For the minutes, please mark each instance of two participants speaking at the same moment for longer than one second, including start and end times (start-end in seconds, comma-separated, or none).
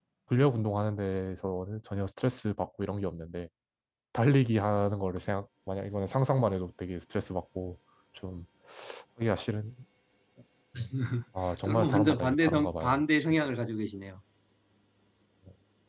11.6-13.5